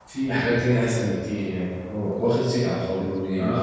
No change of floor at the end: No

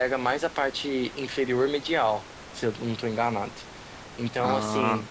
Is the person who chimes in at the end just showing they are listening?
Yes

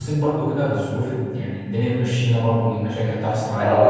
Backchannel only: No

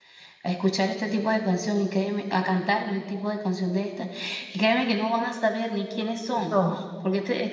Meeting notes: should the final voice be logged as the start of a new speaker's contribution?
No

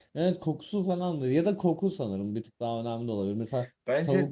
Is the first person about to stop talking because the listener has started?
No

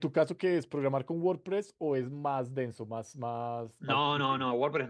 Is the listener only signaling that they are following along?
No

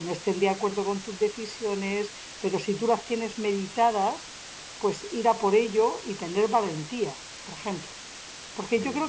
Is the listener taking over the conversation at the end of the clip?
No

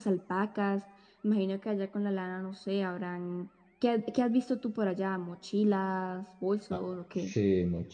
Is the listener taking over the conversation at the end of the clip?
Yes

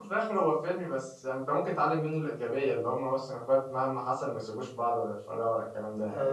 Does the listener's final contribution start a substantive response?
Yes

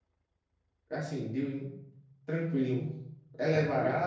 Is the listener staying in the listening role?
No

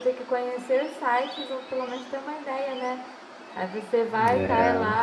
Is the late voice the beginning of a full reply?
No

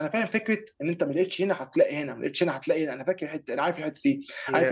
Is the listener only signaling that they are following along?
Yes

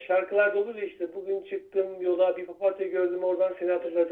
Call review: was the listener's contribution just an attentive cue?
Yes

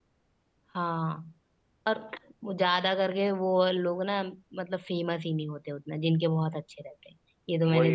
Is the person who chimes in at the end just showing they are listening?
No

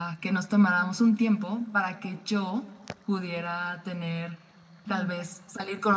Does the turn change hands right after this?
No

